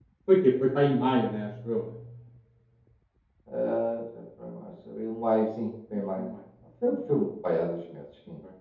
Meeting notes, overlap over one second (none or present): none